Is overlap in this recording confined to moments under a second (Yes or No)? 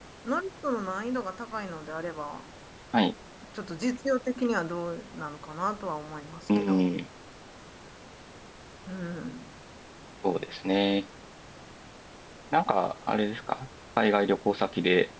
Yes